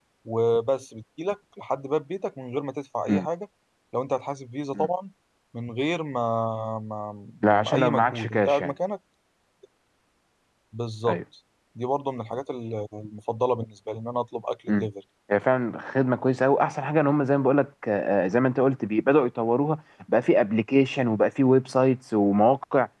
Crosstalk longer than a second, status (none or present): present